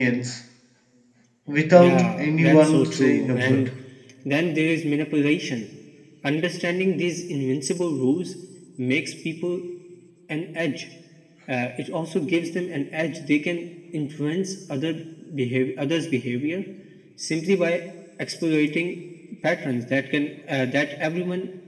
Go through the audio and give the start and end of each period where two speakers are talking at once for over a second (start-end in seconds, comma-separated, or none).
1.8-3.7